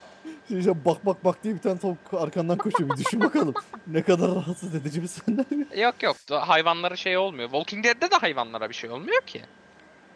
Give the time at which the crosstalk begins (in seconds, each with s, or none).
none